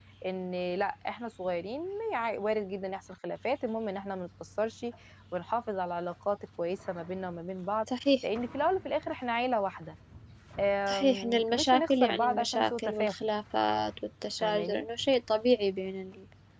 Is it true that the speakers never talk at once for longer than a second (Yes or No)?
No